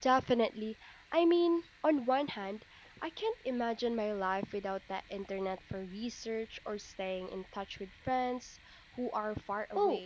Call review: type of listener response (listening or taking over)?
taking over